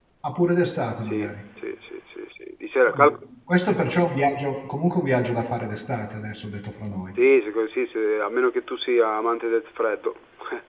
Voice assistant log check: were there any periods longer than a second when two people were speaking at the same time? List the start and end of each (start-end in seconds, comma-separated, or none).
none